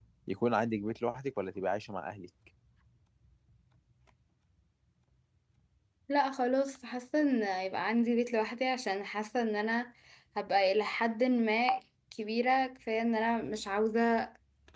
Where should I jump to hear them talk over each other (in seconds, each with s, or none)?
none